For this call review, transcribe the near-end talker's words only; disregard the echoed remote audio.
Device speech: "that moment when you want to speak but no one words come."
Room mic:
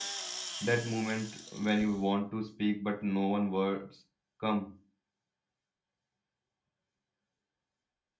none

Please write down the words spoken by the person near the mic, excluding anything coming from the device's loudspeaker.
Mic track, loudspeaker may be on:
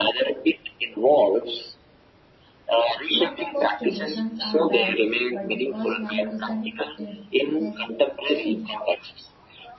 Not because traditions are bad, but because life isn't, it has changed.

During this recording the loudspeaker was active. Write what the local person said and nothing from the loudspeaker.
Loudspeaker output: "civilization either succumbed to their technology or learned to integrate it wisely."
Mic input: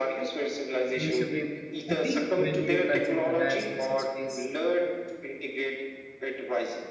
seems to be petty when you consider the vastness of space.

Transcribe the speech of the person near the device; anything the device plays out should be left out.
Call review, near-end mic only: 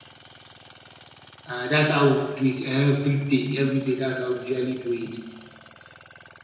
Uh, that's how we do it every day. Every day, that's how we usually do it.

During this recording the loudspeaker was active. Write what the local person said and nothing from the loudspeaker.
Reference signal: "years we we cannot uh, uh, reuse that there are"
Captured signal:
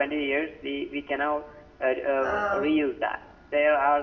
uh,

